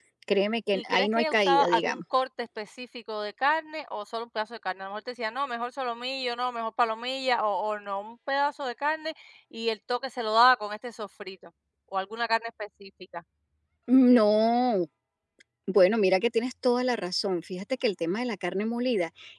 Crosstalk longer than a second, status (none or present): present